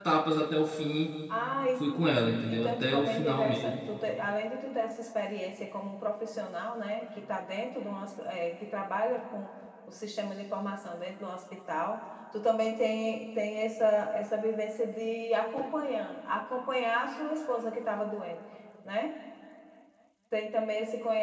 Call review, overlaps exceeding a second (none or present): present